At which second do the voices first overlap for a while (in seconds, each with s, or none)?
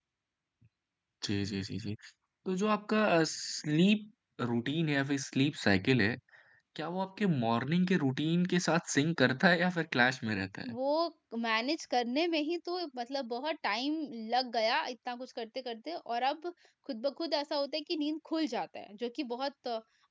none